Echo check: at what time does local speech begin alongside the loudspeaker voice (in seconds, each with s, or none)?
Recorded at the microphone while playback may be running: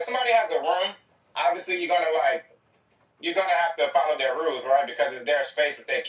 none